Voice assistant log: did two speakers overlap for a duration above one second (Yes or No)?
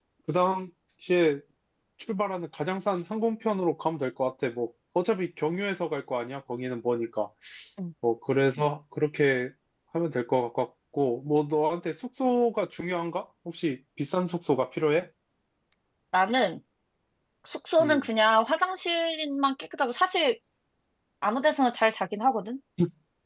No